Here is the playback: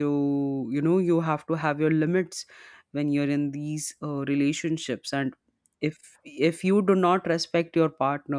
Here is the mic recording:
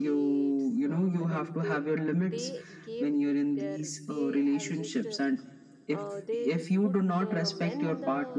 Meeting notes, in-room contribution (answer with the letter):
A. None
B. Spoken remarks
B